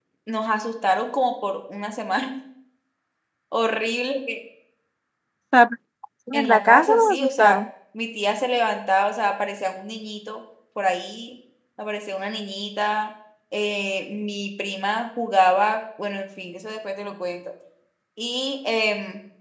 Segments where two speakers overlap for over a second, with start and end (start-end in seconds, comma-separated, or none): 6.3-7.6